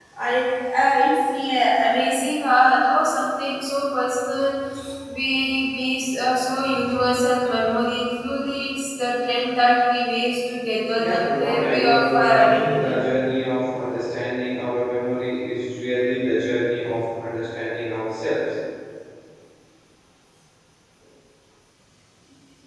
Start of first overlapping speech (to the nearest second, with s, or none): 11 s